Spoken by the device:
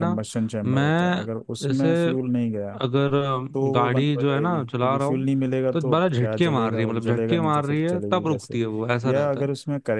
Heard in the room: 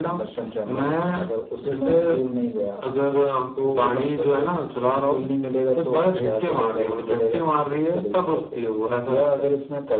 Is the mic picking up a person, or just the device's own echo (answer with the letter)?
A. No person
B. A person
A